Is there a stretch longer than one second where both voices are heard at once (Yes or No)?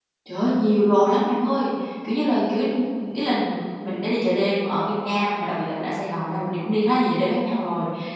No